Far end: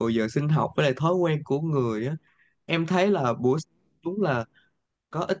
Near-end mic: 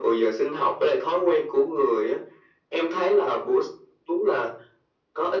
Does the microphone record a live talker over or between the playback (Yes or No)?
No